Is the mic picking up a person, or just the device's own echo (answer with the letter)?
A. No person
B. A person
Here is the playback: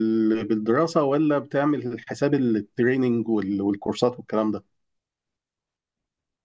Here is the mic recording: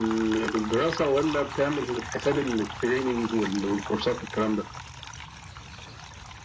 A